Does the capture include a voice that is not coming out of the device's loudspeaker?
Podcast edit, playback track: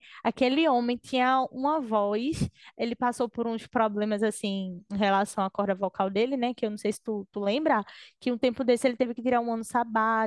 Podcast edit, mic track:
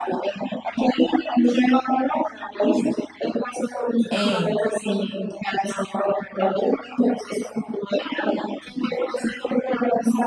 Yes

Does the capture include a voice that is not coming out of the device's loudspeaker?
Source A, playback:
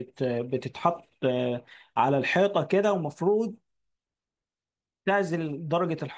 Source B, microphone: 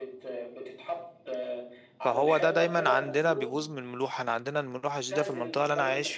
Yes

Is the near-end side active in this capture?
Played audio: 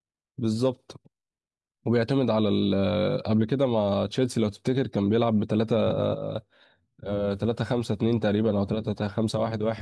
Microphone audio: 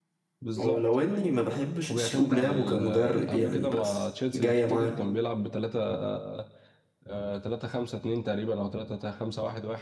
Yes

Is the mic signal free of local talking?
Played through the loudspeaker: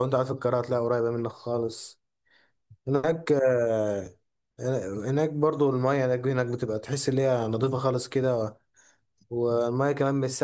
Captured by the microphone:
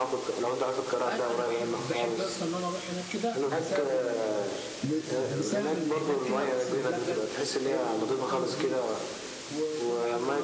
No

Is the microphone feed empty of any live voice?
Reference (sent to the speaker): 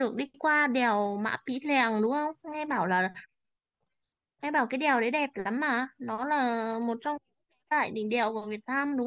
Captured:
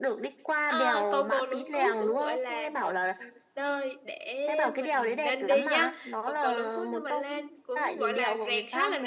No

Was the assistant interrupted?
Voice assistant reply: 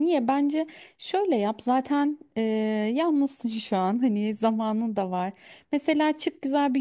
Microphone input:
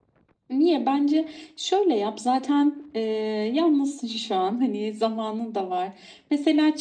No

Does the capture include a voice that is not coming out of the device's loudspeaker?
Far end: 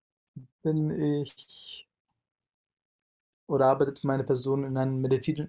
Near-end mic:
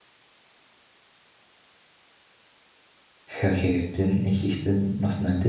Yes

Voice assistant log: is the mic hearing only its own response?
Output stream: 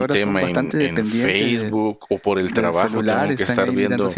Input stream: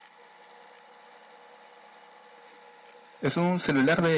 No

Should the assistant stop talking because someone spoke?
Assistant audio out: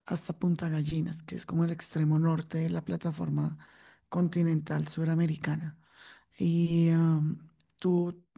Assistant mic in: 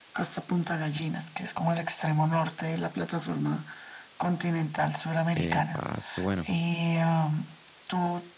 Yes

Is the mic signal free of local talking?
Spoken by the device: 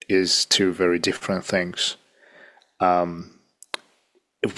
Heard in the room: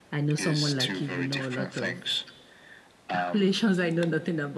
No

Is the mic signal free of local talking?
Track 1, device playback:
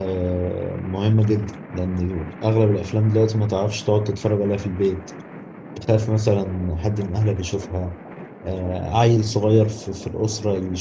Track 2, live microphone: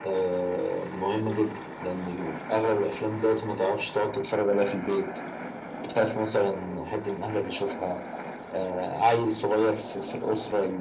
Yes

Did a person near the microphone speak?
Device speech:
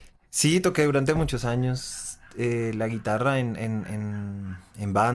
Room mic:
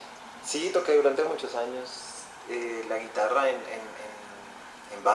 No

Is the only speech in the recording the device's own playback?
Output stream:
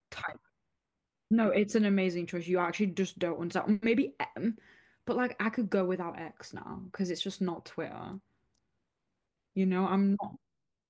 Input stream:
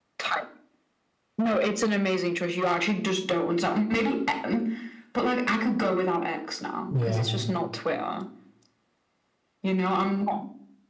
No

